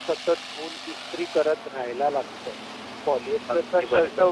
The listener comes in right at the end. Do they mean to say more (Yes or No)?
No